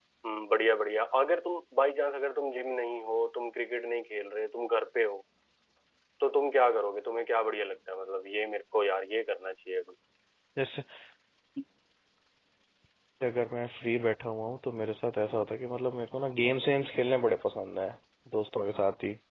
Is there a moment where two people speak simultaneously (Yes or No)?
No